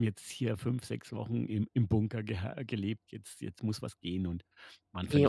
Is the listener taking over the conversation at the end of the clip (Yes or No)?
Yes